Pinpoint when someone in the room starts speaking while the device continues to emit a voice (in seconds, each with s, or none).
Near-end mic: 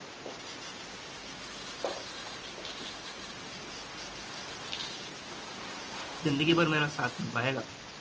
6.2 s